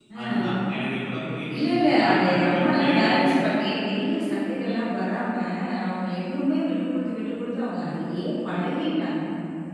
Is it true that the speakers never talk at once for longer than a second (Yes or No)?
No